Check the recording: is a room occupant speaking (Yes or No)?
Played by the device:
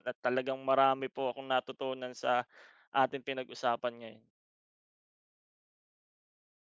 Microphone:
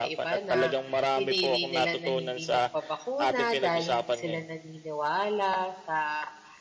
Yes